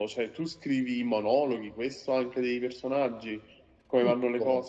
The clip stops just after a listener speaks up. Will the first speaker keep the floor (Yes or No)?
No